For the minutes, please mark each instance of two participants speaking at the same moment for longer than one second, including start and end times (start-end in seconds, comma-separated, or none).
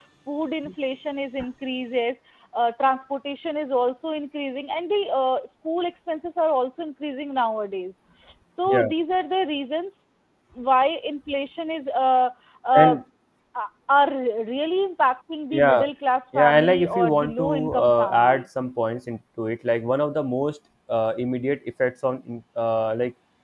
16.4-18.4